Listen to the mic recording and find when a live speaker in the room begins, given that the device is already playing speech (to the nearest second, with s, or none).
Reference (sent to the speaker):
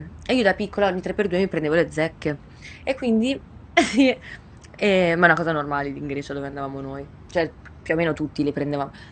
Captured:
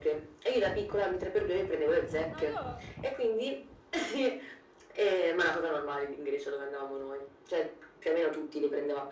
2 s